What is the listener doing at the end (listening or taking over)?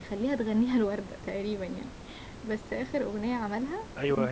taking over